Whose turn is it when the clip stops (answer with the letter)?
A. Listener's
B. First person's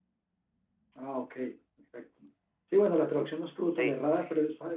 B